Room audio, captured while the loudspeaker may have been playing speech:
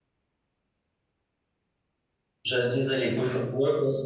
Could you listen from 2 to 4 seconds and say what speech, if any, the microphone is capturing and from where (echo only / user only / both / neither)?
user only